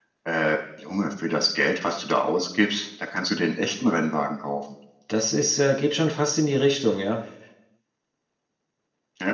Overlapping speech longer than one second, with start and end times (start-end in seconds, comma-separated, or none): none